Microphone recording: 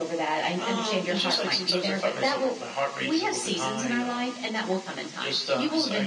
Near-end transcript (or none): none